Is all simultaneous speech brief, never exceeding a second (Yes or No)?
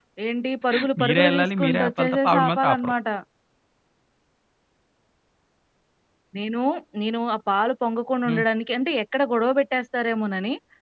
No